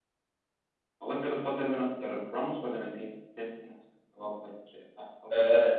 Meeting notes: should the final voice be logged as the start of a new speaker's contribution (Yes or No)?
Yes